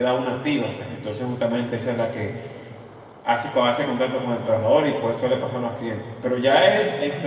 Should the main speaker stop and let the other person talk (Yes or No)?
No